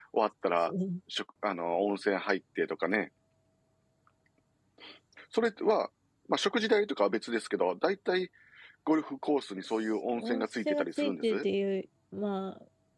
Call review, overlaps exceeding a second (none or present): present